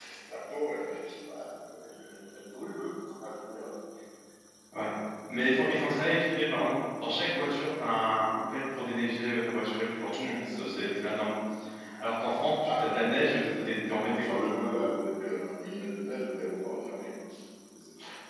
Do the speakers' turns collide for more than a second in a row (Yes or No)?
Yes